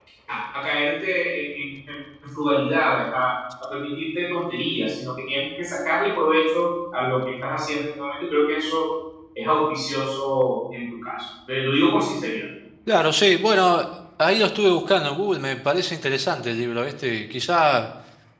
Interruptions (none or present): none